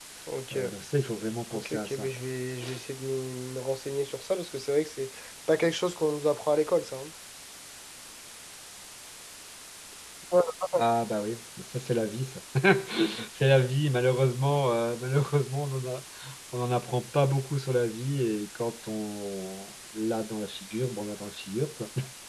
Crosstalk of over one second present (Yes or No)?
No